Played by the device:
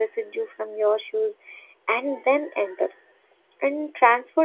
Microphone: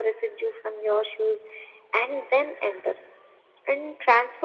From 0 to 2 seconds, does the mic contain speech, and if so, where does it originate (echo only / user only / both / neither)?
echo only